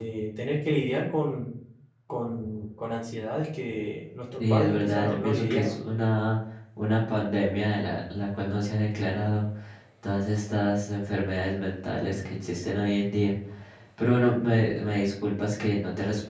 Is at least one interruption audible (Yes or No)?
Yes